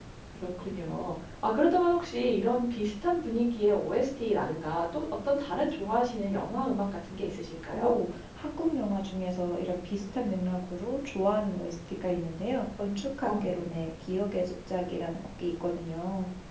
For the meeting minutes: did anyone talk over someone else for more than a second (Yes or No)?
No